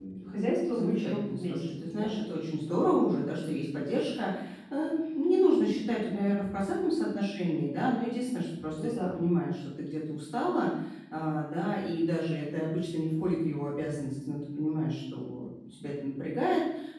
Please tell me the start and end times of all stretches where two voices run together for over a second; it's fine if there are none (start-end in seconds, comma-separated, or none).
0.7-2.1